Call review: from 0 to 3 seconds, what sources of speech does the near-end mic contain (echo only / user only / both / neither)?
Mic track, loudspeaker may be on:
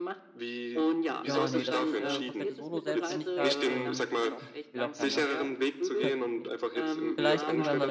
both